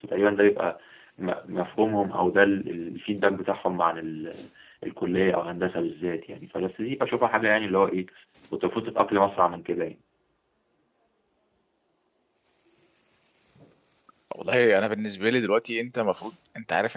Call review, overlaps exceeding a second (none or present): none